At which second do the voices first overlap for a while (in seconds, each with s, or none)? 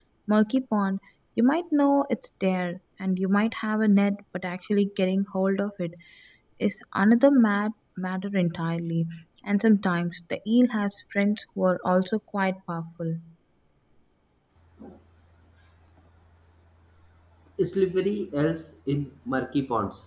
none